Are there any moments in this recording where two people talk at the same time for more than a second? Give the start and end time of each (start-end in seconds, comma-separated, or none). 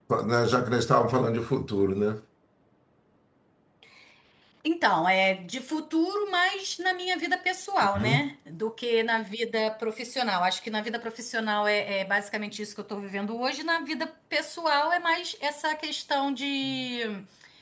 none